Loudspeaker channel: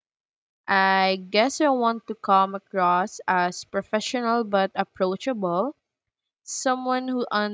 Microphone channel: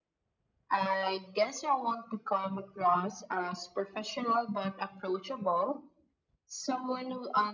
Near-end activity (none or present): none